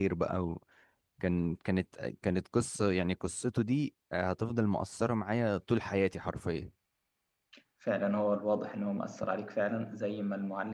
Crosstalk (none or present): none